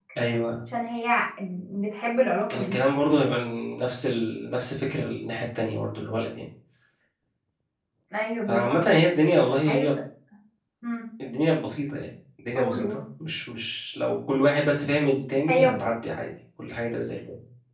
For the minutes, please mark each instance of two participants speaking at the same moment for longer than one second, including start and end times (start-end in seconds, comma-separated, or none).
none